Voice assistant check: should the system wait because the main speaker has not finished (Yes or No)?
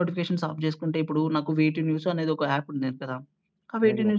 Yes